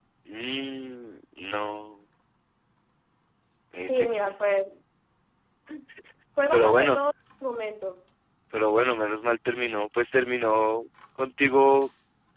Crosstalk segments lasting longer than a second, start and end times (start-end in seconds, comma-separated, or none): none